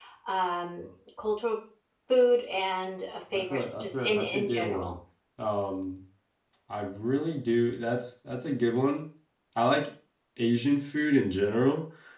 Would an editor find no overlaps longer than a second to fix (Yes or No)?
No